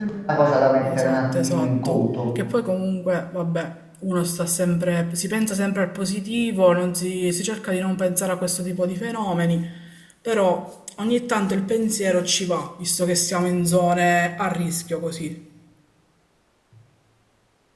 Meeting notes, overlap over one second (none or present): present